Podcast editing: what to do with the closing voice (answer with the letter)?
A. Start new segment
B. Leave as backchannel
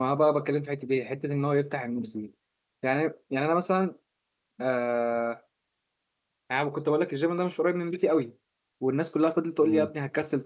B